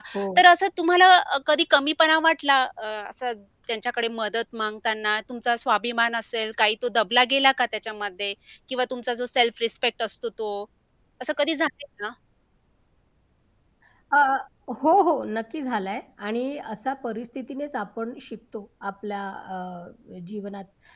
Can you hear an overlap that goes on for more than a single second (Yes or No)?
No